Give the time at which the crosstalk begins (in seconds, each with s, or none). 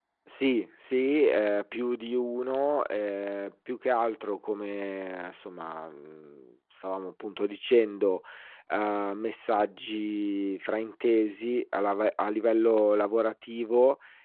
none